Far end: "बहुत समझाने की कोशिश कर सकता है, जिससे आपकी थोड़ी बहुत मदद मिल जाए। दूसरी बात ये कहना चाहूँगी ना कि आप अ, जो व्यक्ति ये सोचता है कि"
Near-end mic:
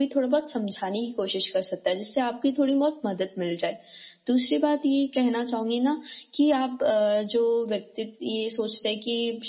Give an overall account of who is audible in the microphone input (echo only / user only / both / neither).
echo only